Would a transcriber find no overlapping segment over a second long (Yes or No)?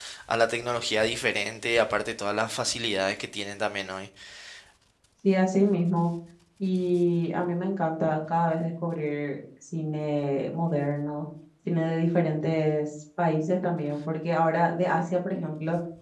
Yes